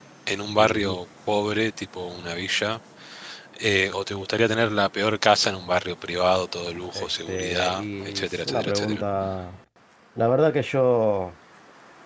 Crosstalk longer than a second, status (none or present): present